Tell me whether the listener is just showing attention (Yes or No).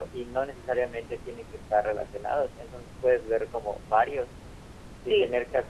Yes